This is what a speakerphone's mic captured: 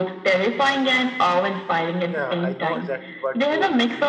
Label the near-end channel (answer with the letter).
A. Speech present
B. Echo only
A